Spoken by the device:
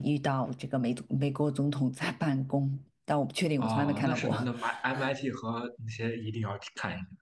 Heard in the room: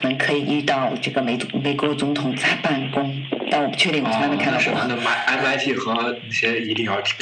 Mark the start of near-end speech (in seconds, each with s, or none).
none